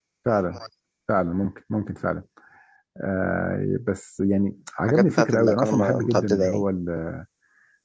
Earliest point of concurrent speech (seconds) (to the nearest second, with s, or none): 5 s